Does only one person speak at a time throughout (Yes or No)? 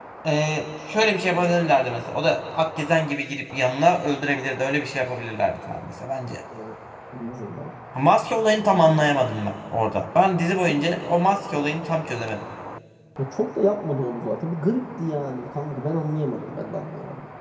Yes